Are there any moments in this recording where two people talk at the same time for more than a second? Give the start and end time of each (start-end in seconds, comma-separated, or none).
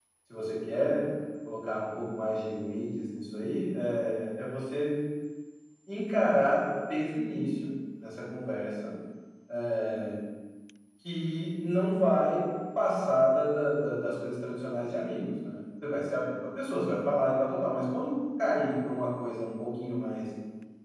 none